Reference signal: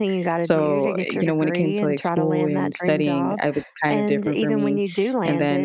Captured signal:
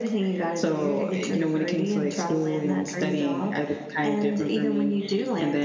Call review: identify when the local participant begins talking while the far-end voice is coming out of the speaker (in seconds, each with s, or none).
none